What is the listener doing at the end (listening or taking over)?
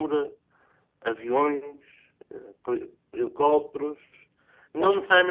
listening